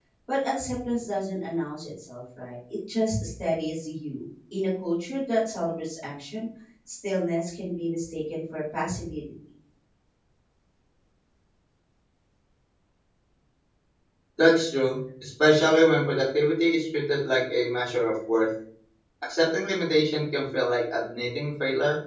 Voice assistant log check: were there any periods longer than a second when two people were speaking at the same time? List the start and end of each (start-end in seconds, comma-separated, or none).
none